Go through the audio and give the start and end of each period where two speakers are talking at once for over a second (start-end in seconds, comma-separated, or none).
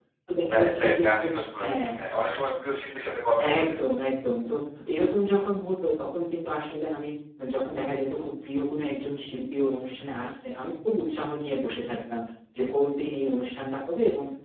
0.5-1.8